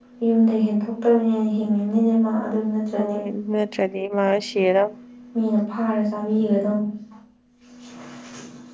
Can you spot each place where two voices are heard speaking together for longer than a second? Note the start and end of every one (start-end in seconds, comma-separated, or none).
none